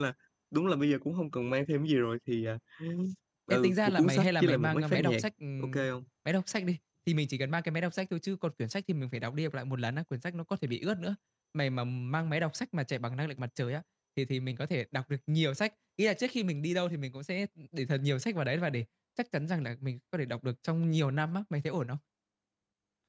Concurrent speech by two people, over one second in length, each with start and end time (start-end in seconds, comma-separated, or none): 3.5-5.2